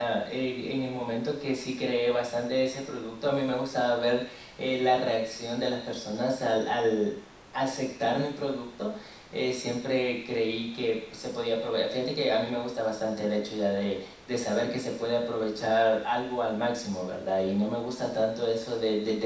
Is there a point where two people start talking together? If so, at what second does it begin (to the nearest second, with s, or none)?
none